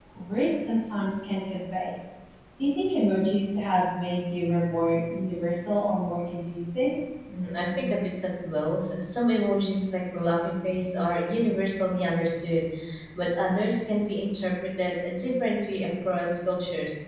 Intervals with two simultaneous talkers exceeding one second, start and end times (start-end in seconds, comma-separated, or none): none